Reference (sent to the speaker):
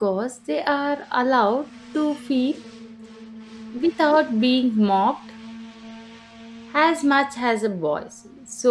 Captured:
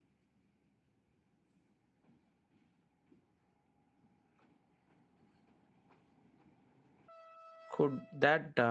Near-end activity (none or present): present